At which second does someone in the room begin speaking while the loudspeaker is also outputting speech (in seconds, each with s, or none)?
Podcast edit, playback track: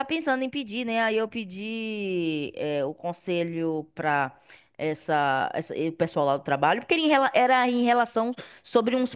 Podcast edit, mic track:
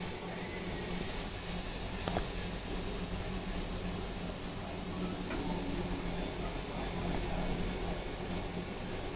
none